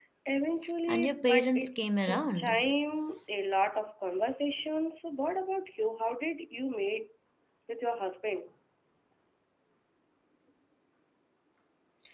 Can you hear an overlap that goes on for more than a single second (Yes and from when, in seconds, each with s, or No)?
Yes, from 0.9 s